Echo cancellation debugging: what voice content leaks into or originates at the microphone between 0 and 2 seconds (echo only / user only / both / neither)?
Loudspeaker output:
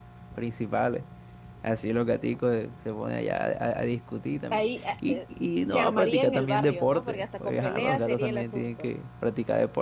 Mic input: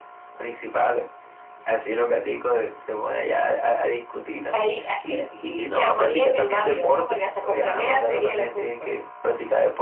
echo only